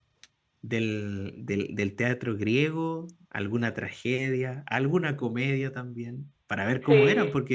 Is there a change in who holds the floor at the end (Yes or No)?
No